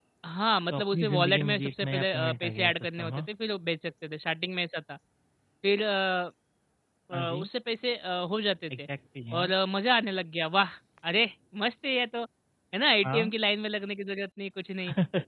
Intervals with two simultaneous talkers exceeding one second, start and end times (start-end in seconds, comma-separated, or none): 0.7-3.3